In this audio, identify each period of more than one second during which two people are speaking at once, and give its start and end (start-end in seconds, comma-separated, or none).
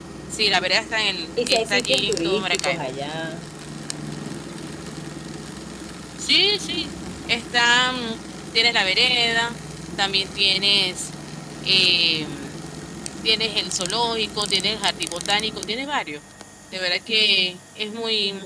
1.4-2.9